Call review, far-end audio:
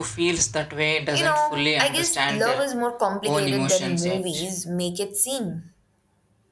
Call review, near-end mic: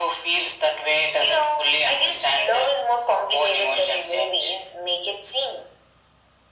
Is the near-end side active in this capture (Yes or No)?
No